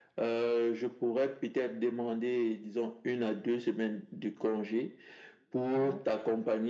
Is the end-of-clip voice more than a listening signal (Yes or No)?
No